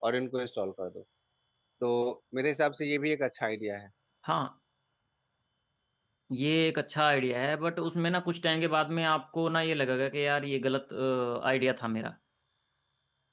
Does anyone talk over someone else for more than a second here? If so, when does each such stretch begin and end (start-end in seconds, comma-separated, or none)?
none